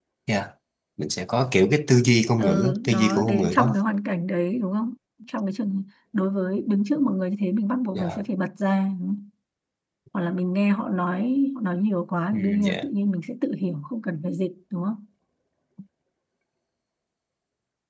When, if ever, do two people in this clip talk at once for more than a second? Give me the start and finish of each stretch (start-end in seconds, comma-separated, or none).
2.4-3.7